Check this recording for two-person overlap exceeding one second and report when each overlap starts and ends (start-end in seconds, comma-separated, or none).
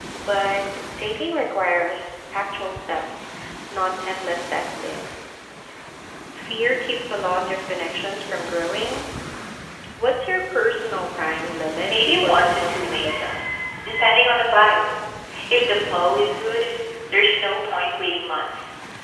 11.9-13.3